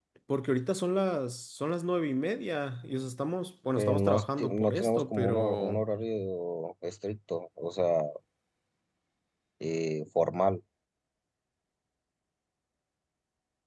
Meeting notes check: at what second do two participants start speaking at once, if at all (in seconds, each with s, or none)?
3.8 s